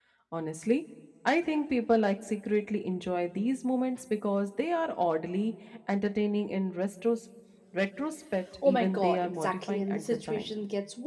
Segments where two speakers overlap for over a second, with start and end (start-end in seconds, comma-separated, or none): 8.6-10.5